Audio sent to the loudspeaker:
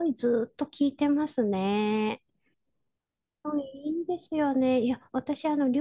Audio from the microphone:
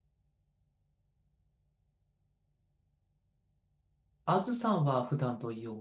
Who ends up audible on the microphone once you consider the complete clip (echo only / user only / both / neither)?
user only